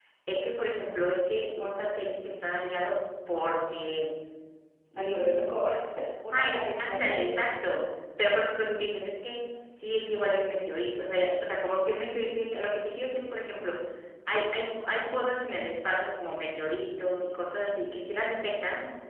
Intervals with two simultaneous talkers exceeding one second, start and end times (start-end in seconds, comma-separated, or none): 6.3-7.5